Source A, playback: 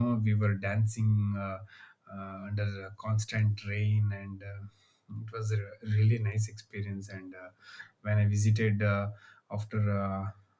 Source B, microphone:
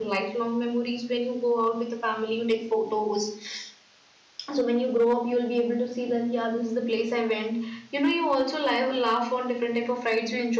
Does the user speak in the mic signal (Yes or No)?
Yes